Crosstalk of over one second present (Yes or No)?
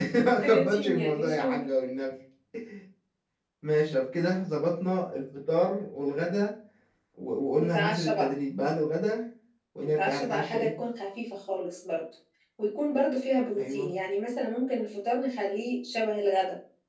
Yes